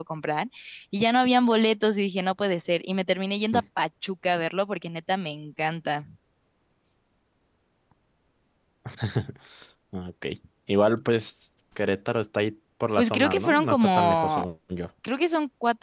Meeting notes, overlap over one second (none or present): present